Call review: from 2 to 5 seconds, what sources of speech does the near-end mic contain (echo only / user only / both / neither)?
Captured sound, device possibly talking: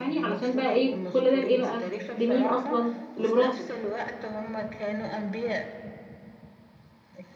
both